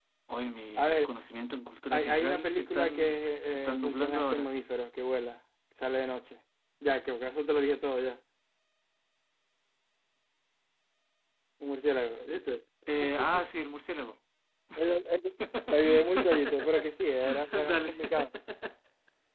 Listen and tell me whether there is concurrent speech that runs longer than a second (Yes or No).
Yes